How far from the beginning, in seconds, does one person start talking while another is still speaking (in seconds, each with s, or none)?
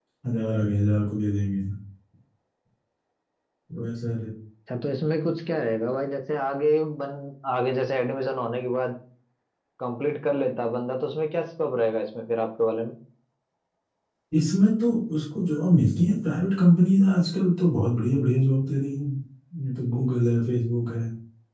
none